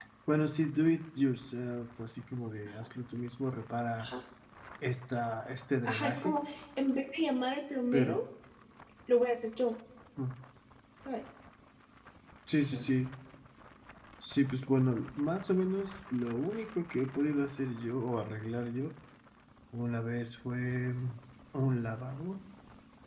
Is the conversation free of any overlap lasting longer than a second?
Yes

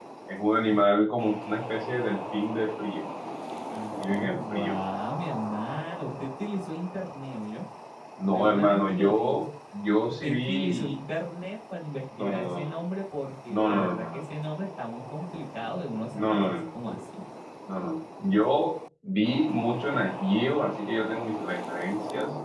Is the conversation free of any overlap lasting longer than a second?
No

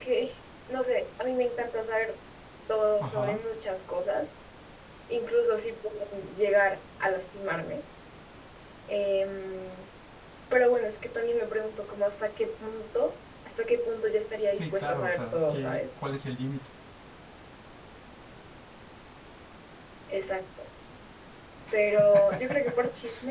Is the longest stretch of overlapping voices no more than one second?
No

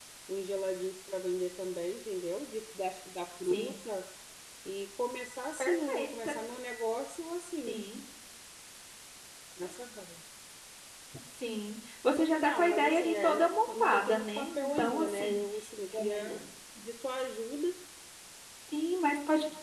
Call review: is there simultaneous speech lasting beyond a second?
Yes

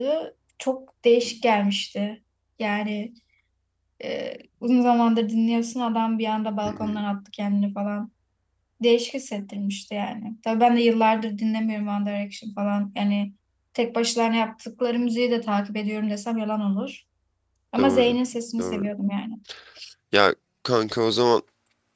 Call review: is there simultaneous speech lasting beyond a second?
No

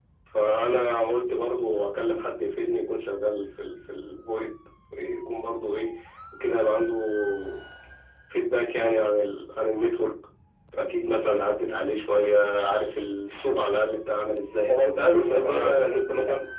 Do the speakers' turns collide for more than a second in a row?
Yes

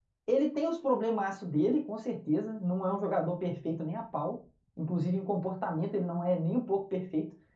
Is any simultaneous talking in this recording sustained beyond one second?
No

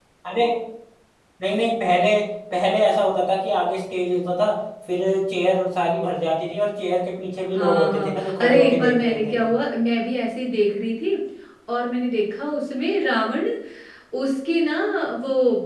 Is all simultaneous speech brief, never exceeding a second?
No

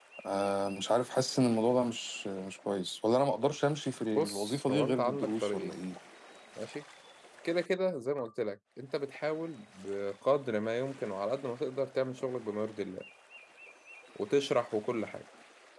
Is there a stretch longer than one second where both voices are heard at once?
Yes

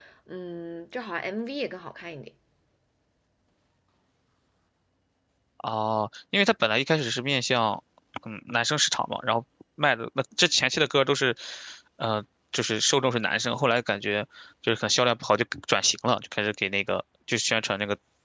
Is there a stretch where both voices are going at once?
No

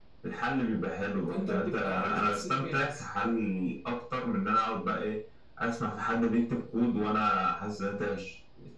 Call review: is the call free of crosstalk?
No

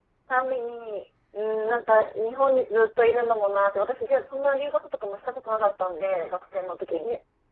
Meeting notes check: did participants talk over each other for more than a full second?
No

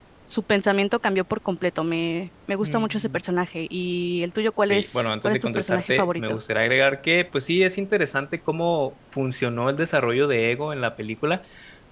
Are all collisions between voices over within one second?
No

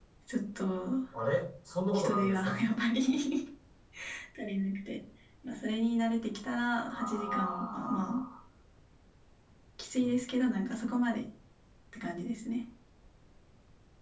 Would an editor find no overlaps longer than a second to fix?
No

